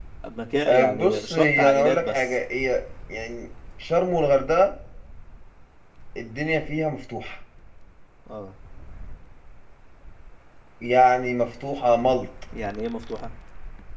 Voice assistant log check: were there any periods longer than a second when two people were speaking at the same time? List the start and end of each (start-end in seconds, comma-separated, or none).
0.7-2.3